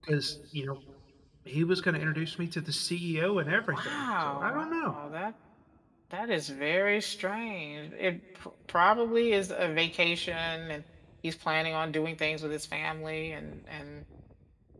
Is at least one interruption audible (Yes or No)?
Yes